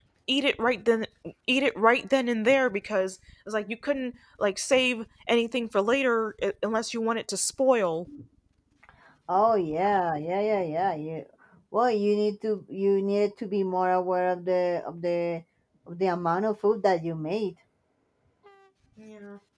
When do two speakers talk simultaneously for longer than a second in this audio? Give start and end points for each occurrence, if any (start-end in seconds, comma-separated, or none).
none